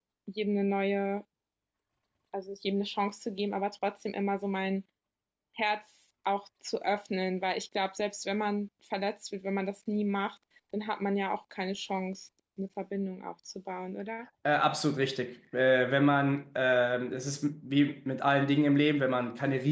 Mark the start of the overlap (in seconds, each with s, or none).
none